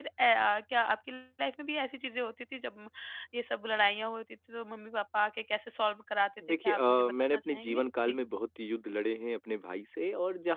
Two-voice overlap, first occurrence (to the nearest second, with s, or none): 6 s